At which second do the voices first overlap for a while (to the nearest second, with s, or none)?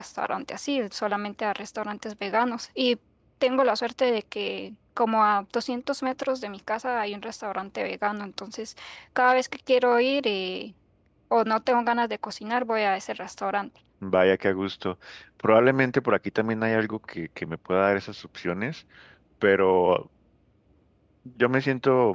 none